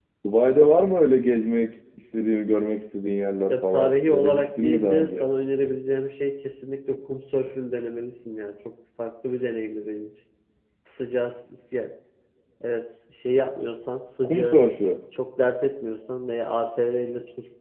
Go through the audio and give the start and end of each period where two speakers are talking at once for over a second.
3.5-5.3

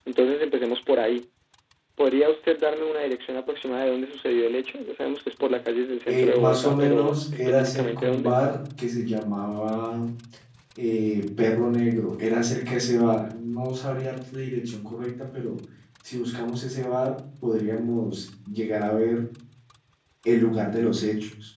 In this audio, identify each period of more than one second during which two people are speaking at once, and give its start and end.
6.1-8.4

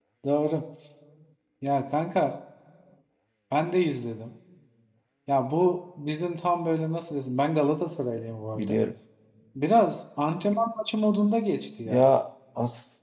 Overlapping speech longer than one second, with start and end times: none

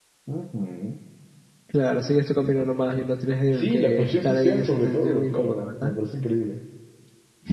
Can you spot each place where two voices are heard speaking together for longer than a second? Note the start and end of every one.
3.5-5.9

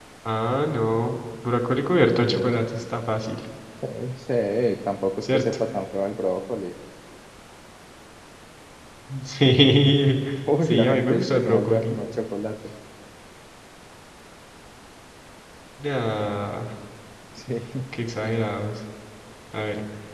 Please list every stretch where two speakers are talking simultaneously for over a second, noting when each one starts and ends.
10.7-12.0

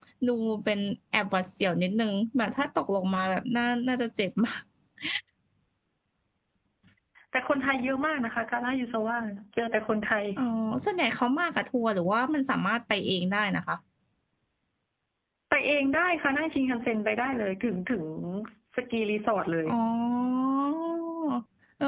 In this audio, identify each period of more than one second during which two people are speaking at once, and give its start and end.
none

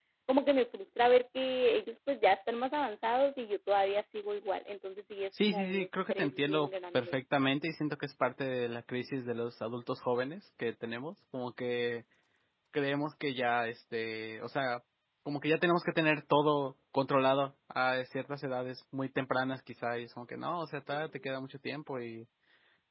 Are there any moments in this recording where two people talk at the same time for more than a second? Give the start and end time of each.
5.4-7.2

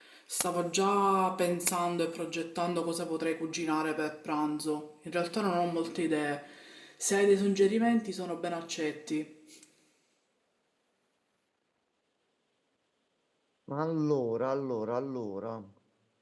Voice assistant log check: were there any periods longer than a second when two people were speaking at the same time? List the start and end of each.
none

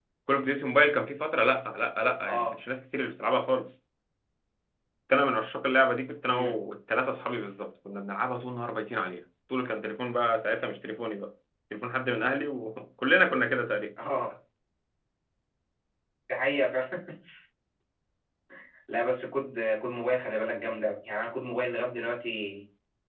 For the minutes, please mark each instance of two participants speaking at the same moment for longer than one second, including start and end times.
none

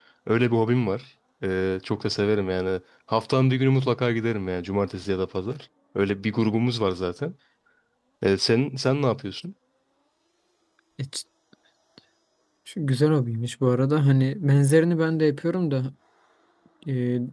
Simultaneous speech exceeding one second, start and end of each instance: none

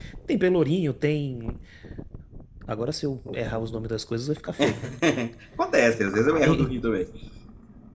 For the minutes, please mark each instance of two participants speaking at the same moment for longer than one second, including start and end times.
none

